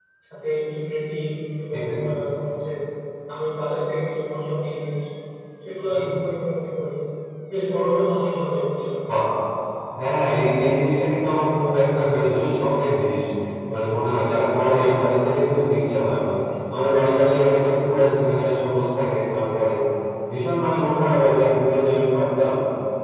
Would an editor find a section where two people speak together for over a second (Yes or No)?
No